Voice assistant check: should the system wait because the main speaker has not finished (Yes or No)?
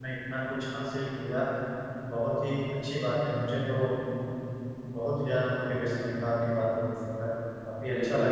No